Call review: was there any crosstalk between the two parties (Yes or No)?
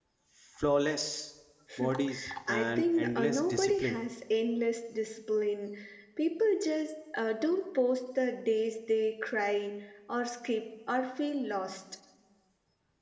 Yes